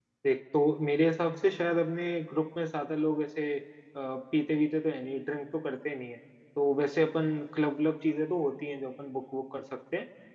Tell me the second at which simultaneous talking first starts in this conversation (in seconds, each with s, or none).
none